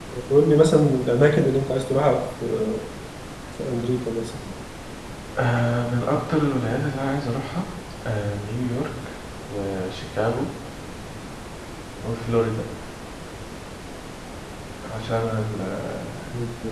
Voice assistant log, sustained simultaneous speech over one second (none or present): none